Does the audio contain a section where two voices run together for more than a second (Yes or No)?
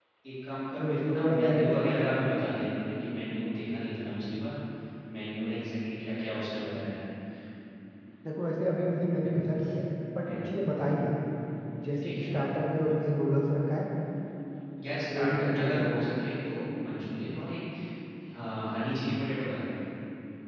Yes